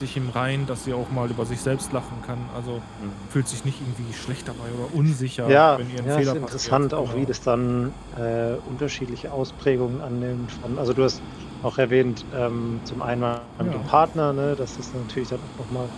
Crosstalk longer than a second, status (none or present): present